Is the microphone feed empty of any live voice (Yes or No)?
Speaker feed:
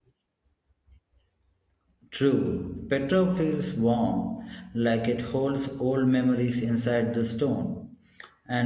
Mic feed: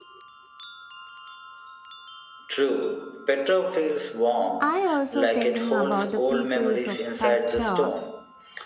No